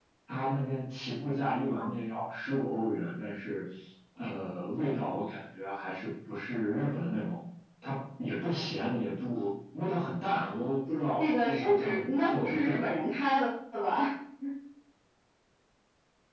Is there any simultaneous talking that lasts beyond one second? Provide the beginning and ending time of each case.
11.2-12.9

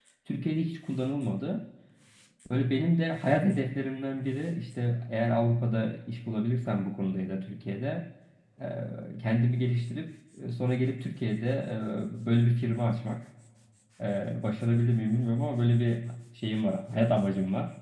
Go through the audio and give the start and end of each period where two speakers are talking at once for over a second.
none

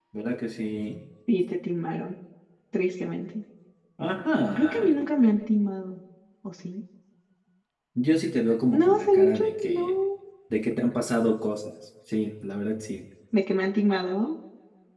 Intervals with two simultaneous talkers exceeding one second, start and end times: 8.7-9.9

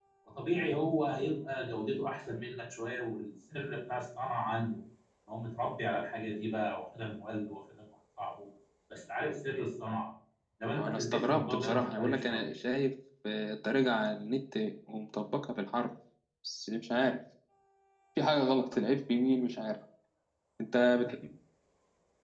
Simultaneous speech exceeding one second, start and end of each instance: 10.7-12.5

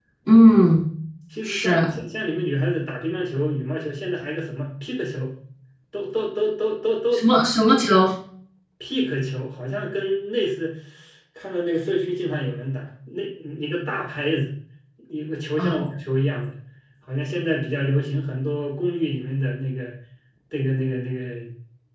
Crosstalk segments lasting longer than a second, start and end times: none

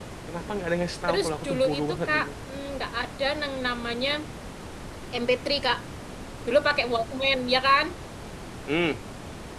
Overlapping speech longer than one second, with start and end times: 1.1-2.3

